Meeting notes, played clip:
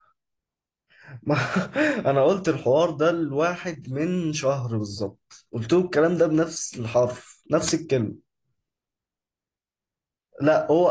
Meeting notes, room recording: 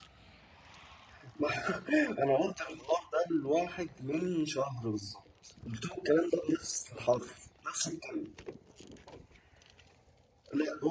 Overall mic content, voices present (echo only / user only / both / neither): echo only